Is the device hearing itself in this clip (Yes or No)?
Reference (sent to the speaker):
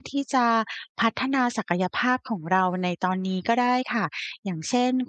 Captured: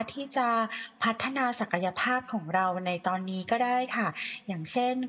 Yes